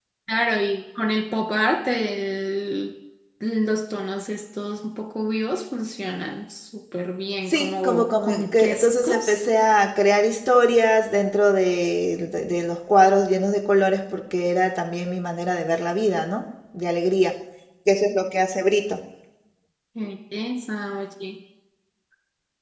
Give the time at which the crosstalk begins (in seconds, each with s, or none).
7.5 s